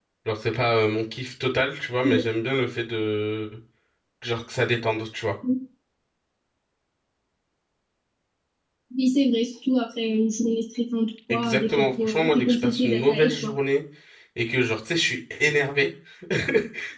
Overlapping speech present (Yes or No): Yes